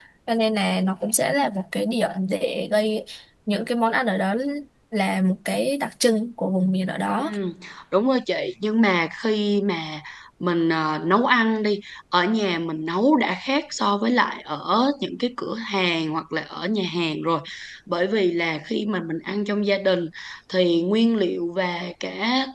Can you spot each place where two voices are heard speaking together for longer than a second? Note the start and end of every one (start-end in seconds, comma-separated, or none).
none